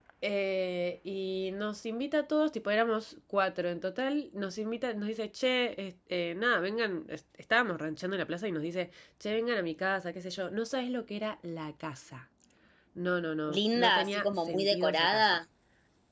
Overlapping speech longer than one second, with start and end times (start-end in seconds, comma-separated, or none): 13.5-15.2